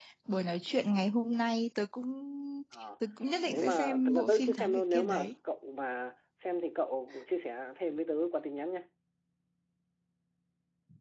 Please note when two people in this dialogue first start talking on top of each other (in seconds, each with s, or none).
3.5 s